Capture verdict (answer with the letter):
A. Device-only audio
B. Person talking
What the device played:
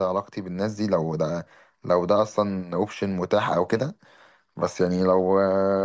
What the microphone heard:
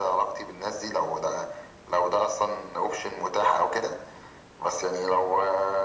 A